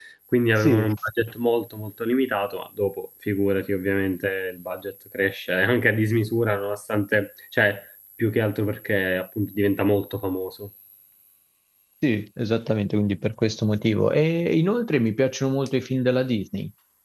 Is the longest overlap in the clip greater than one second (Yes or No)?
No